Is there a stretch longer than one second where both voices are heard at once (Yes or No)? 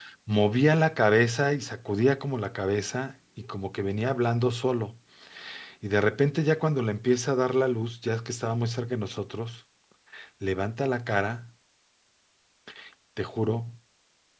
No